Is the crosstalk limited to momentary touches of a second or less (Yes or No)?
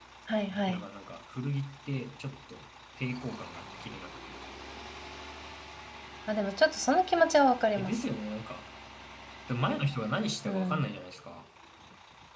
Yes